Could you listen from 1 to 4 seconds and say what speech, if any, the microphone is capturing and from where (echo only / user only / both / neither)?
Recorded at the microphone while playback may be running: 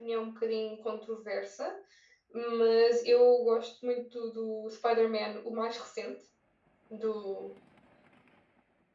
echo only